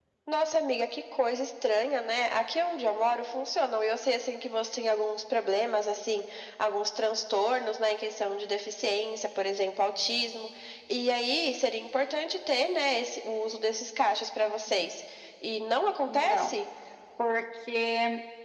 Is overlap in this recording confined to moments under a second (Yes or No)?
Yes